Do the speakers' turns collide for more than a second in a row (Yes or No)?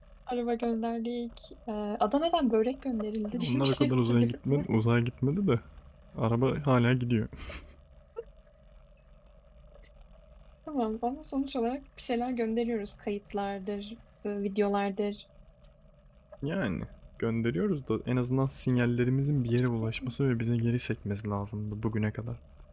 Yes